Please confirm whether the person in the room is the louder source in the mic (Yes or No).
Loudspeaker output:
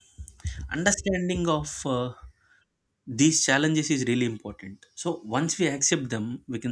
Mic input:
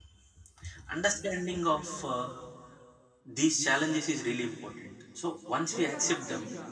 No